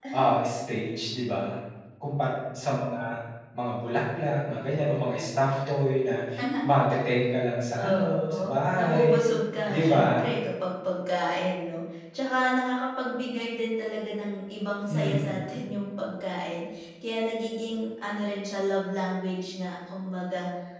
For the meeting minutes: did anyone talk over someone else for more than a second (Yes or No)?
Yes